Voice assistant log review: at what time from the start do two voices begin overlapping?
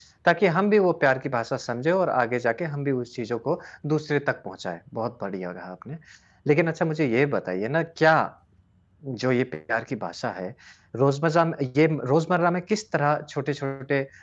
none

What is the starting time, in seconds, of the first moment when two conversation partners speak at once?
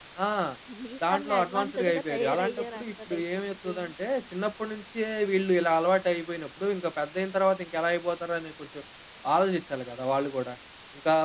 1.1 s

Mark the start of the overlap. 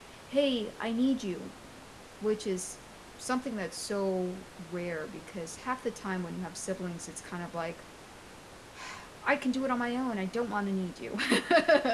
none

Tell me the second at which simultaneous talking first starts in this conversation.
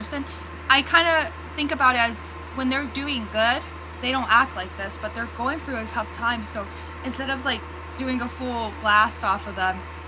none

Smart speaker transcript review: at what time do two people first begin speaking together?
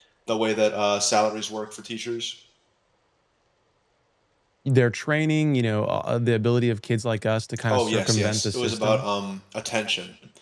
7.7 s

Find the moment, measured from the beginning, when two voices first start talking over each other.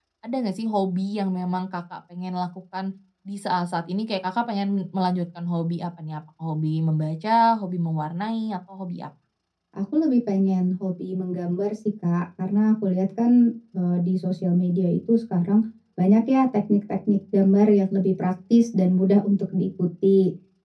none

